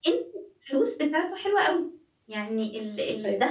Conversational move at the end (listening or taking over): listening